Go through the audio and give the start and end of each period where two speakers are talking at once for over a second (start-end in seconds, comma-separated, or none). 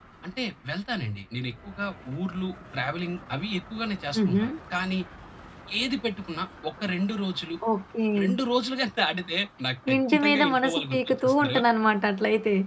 9.9-11.6